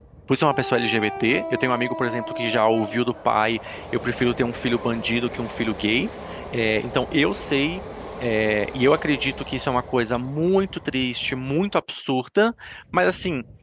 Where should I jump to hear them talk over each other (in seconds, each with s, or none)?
none